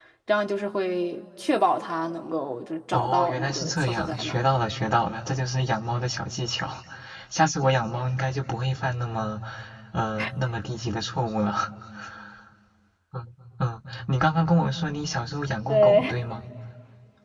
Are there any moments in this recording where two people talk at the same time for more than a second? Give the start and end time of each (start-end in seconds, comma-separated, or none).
2.9-4.4